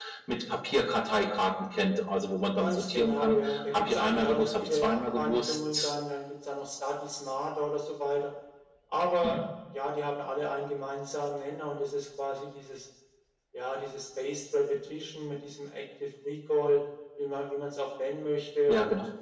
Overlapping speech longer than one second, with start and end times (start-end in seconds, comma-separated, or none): 2.6-5.9